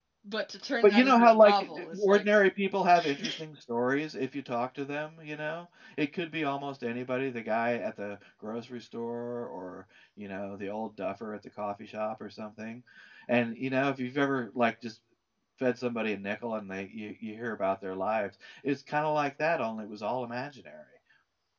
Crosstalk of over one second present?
Yes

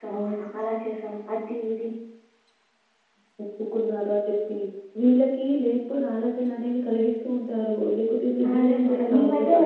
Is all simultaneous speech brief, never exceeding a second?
No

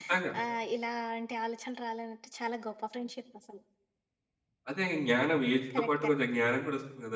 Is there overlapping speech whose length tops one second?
No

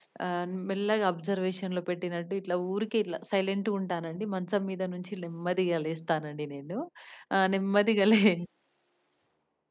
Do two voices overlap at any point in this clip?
No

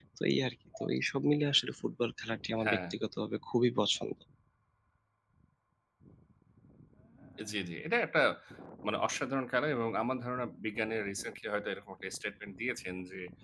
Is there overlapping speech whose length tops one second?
No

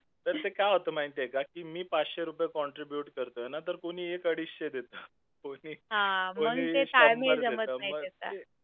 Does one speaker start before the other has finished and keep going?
Yes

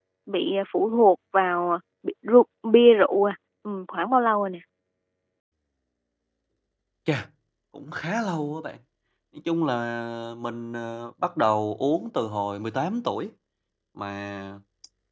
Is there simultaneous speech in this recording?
No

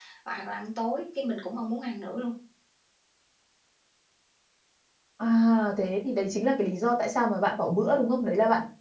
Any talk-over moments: No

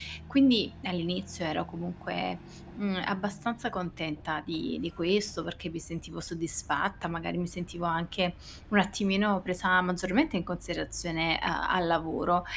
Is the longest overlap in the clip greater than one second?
No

